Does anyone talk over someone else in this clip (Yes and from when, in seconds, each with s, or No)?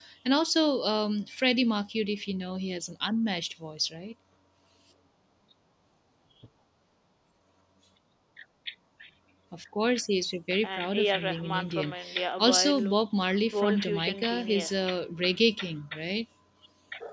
Yes, from 10.6 s